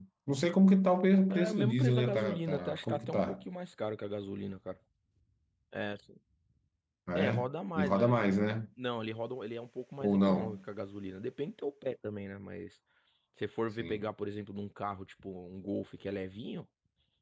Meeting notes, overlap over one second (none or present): present